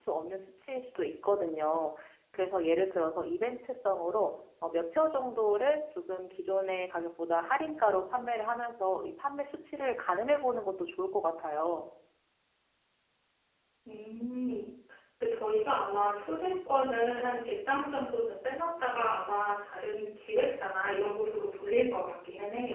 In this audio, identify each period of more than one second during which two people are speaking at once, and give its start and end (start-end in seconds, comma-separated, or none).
none